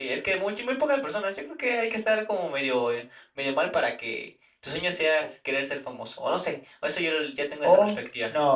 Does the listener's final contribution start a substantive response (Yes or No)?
Yes